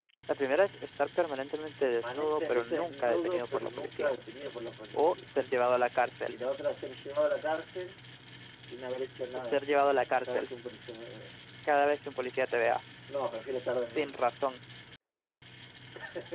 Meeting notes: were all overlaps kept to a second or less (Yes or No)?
No